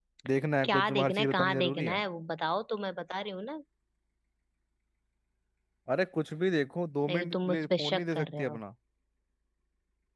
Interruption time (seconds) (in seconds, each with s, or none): 0.6 s